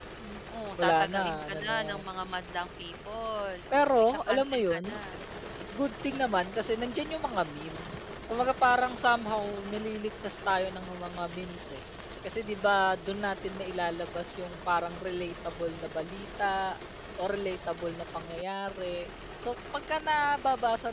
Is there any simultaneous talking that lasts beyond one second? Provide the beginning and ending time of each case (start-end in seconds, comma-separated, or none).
0.8-2.0, 3.7-5.0